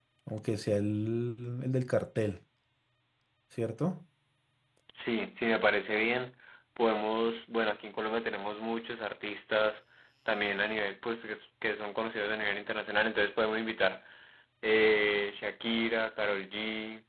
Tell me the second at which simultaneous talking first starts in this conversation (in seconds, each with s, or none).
none